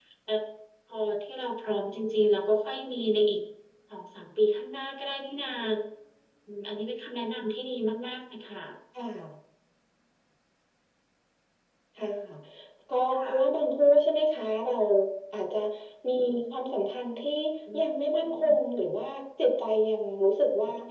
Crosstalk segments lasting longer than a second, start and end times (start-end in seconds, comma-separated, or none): none